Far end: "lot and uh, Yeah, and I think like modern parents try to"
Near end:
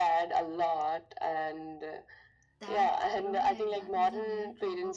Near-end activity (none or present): present